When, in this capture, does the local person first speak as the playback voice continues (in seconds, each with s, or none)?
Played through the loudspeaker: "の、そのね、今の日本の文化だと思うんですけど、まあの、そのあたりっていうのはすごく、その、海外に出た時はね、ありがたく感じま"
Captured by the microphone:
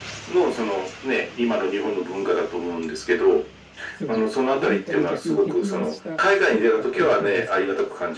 3.9 s